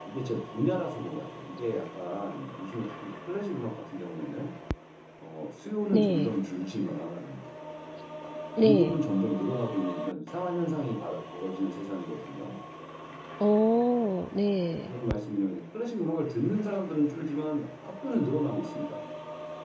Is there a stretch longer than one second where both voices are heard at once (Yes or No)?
No